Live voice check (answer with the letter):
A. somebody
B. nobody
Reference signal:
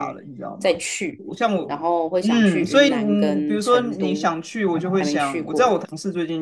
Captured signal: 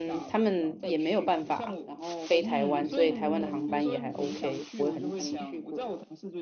A